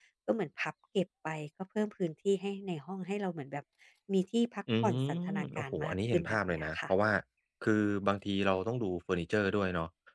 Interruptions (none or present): present